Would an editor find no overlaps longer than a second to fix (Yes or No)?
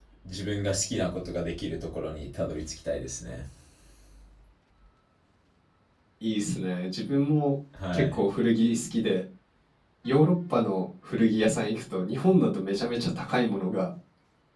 Yes